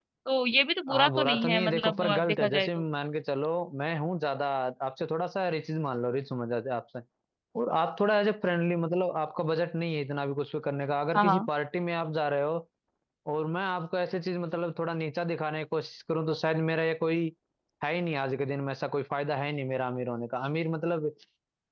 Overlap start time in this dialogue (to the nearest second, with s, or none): 1 s